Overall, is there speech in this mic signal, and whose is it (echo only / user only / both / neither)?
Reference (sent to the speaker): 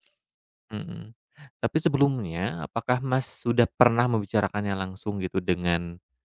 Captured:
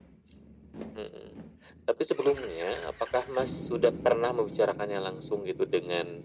echo only